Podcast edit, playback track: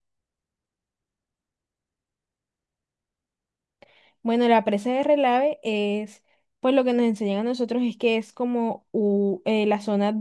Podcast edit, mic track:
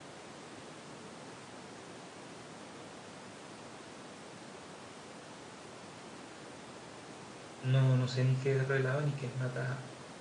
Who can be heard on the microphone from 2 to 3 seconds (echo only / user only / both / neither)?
neither